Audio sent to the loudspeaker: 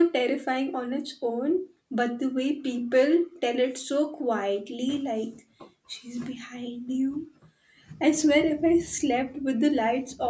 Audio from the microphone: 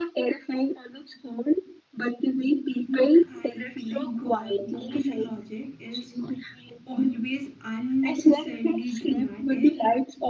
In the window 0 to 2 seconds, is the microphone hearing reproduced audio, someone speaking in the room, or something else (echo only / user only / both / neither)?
echo only